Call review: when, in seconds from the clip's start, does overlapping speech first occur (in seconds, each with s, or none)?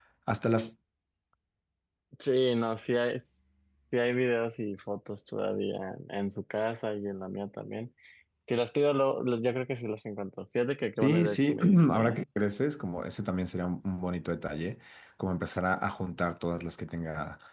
10.9 s